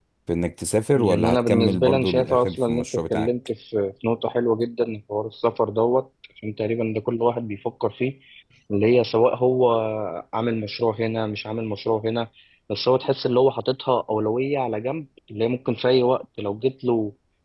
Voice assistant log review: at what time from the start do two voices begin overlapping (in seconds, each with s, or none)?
0.9 s